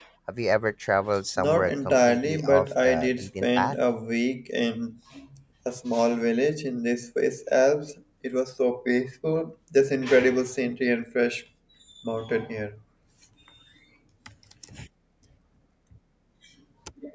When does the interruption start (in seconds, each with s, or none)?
1.4 s